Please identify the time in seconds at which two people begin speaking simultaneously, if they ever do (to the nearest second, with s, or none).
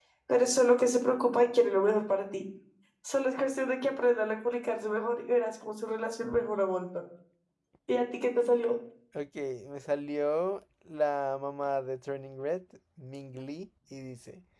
none